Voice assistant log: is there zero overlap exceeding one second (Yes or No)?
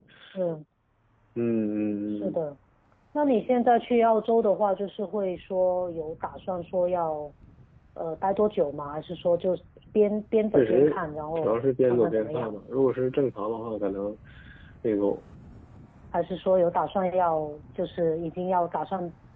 No